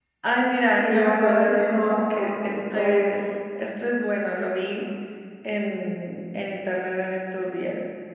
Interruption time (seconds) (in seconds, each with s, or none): 0.8 s